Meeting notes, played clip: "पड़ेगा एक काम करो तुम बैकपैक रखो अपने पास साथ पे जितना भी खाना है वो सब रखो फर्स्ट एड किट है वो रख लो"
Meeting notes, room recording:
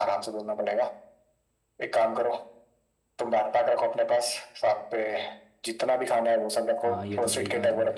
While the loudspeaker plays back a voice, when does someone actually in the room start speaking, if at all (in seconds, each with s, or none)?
6.8 s